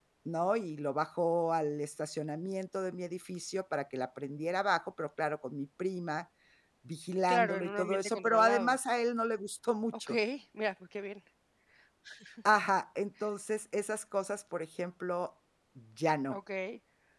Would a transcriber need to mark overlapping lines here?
Yes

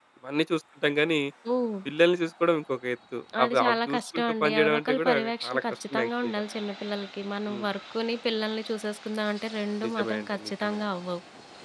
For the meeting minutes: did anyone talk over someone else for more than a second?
Yes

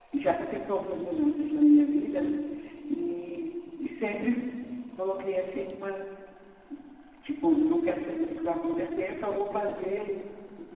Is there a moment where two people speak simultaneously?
No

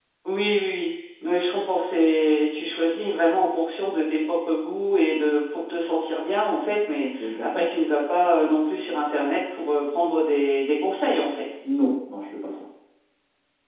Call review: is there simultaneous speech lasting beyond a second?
No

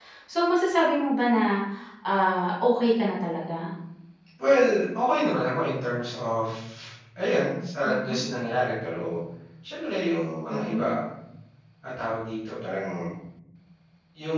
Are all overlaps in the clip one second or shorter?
Yes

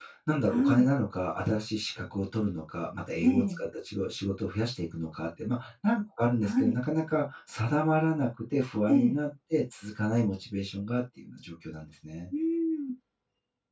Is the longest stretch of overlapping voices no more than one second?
Yes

